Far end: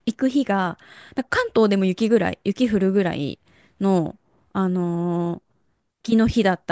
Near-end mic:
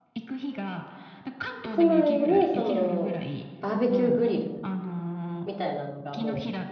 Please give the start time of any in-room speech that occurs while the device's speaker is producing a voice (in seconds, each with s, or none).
1.7 s